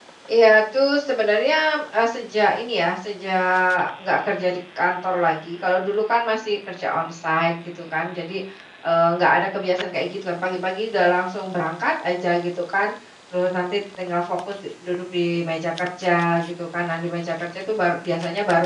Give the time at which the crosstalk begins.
none

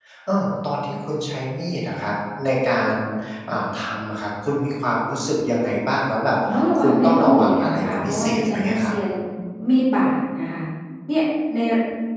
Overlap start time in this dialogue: 6.8 s

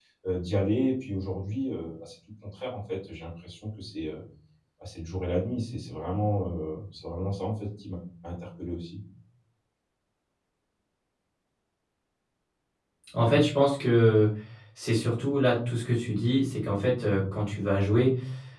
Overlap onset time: none

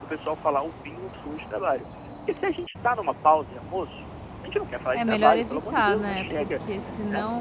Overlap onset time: 4.9 s

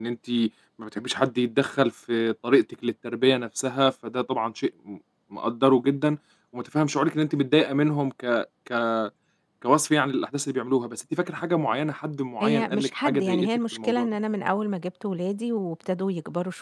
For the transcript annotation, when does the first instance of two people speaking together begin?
12.4 s

